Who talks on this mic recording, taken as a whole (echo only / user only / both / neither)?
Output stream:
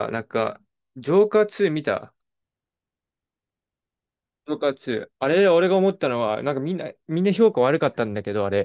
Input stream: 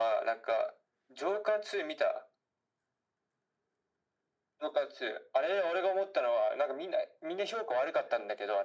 echo only